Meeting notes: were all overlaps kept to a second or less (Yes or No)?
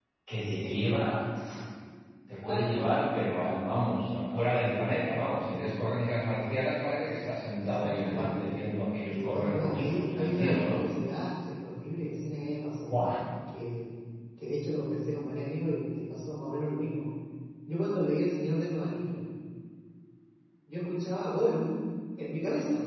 No